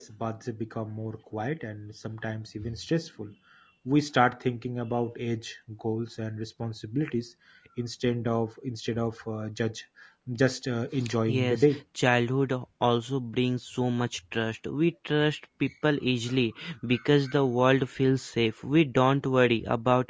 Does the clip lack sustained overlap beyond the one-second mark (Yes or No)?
Yes